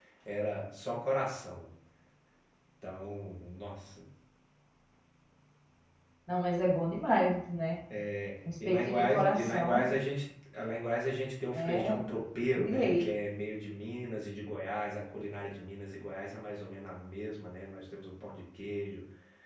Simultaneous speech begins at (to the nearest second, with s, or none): 9 s